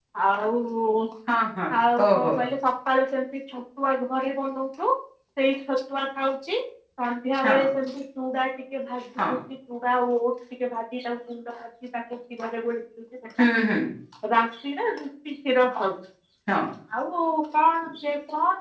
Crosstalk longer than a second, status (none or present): none